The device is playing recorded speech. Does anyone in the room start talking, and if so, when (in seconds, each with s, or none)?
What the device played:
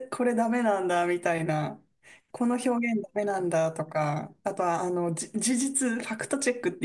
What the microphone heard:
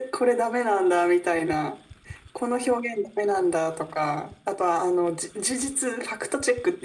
none